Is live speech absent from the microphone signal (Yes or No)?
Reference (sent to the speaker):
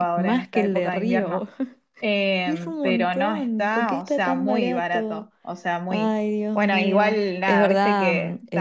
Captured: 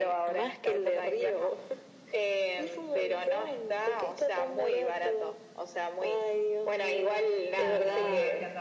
No